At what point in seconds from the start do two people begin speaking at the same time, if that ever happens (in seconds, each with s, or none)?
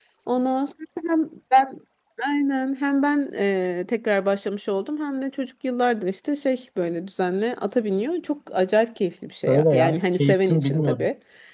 9.5 s